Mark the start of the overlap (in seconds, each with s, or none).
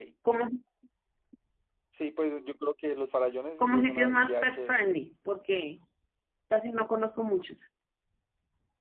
3.6 s